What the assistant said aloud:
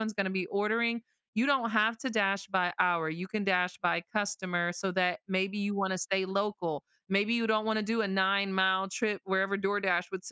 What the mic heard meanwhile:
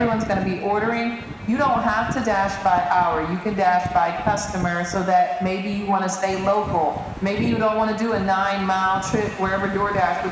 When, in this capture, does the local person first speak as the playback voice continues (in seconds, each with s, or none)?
none